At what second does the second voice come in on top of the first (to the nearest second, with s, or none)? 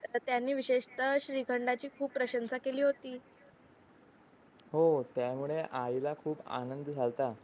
none